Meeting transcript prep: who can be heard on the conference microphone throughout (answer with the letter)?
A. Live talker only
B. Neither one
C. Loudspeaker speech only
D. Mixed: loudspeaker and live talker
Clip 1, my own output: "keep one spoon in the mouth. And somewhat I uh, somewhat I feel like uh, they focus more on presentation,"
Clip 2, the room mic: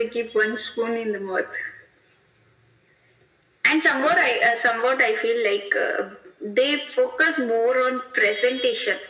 C